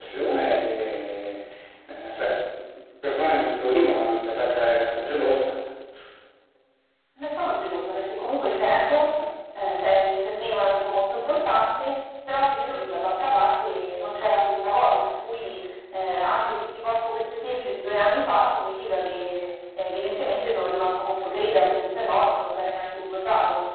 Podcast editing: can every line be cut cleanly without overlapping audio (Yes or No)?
Yes